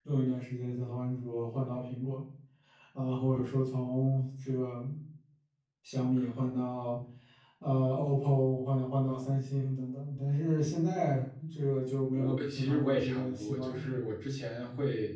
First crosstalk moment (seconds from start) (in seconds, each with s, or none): 12.2 s